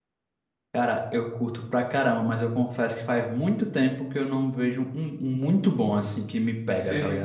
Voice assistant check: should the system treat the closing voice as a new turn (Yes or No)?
Yes